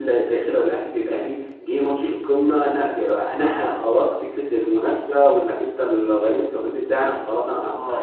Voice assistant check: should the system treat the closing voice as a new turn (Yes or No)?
Yes